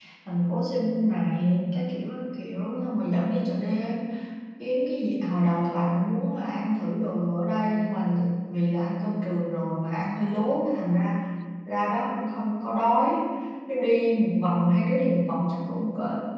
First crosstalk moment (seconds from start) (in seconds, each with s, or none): none